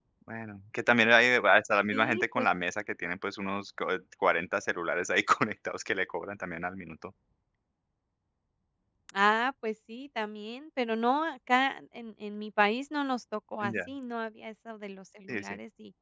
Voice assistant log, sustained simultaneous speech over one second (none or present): none